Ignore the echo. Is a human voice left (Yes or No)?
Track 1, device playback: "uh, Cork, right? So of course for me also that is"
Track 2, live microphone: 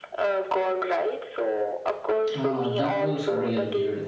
Yes